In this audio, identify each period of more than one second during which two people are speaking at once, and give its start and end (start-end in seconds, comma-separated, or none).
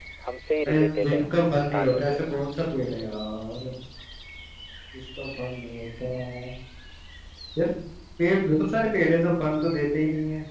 0.7-2.2